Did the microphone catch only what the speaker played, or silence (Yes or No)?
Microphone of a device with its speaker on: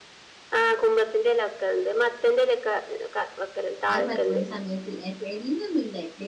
No